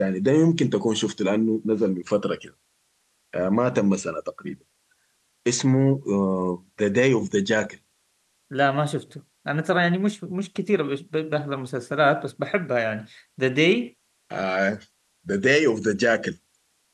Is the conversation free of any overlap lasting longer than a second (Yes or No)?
Yes